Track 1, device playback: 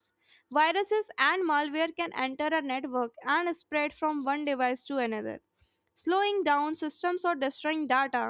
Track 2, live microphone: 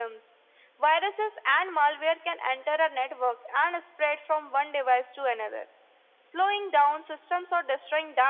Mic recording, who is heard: echo only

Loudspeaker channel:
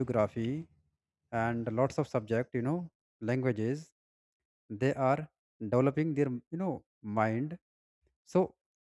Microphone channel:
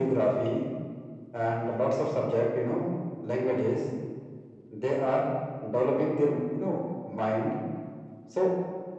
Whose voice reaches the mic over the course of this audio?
echo only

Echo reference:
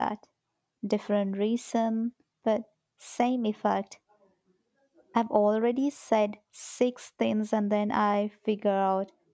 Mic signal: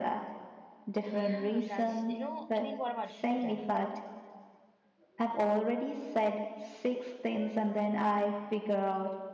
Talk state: both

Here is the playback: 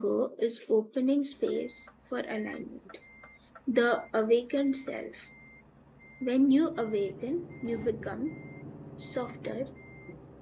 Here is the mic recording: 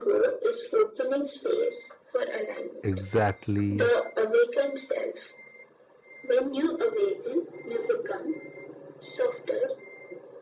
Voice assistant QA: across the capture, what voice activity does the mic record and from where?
both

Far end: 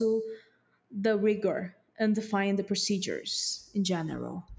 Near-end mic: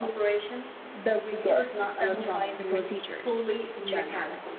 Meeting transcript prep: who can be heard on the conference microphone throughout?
both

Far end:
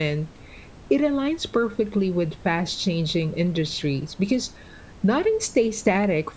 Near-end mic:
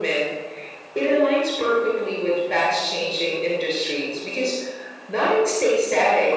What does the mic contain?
echo only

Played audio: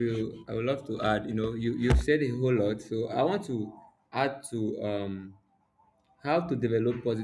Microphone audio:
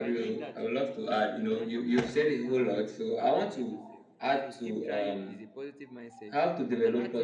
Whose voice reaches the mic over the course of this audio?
both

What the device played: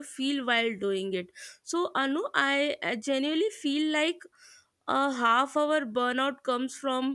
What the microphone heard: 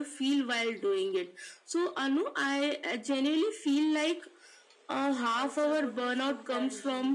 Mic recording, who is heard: both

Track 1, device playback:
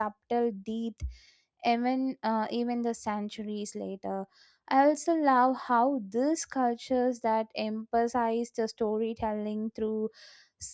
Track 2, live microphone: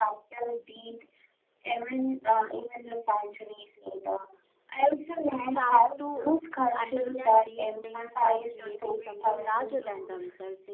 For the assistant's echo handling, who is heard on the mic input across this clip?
both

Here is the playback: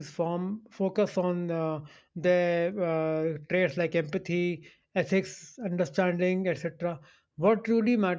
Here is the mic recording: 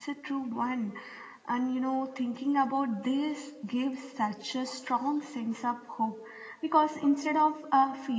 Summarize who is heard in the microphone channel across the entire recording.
user only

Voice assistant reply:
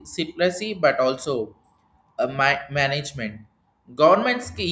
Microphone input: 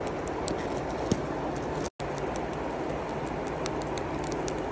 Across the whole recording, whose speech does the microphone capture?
neither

